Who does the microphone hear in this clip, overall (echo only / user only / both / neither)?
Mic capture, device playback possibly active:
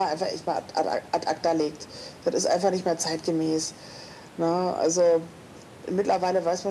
echo only